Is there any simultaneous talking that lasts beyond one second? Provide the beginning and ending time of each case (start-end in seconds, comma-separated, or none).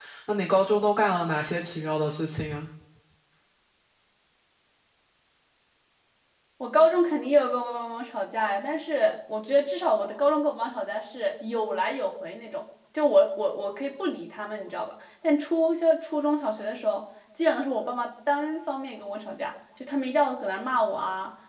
none